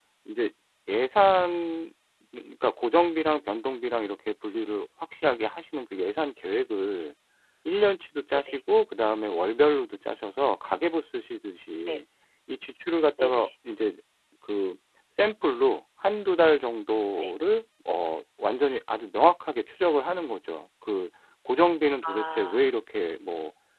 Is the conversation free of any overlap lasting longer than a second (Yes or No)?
Yes